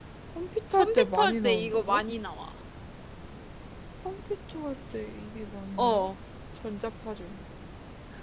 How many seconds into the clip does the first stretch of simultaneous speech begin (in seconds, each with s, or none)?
0.8 s